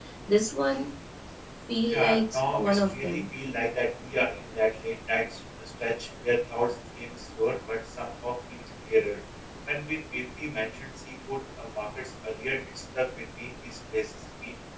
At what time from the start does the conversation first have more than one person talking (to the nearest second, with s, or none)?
2 s